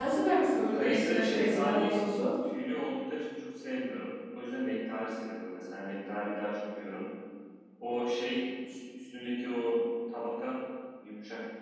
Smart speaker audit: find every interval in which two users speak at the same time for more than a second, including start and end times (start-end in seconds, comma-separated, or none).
0.7-2.0